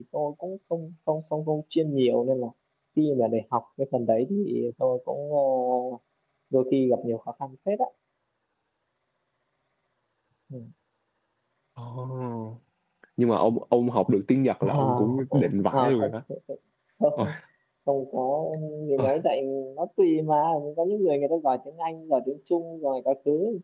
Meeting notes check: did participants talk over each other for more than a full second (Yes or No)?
Yes